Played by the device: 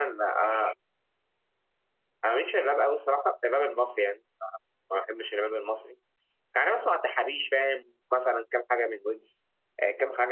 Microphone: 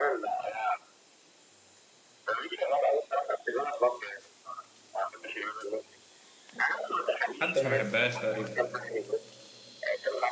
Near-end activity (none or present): present